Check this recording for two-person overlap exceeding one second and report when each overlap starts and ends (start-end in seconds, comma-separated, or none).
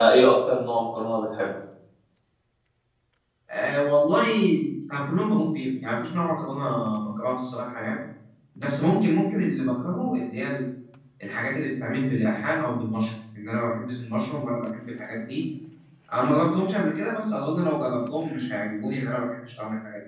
none